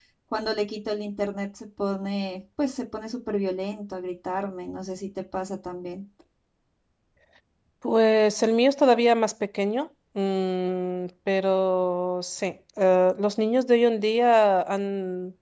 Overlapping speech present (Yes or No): No